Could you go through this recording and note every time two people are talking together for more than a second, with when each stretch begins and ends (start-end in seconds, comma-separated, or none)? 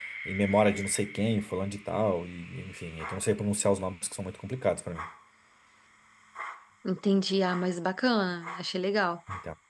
none